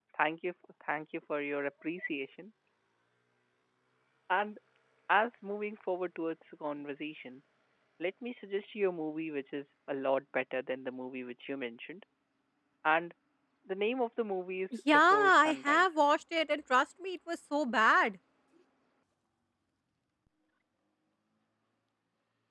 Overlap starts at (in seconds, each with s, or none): 14.7 s